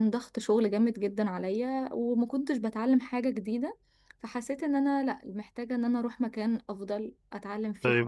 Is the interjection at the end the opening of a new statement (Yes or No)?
Yes